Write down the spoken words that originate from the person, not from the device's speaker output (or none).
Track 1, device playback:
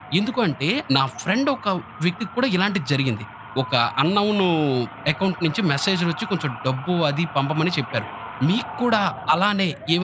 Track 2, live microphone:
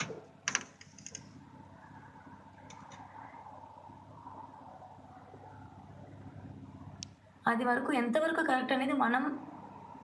అది వరకు ఎంతవరకు కరెక్ట్ అనేది మనం